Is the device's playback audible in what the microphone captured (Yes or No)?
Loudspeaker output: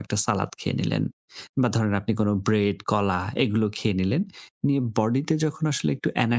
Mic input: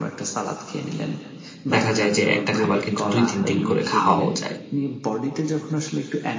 Yes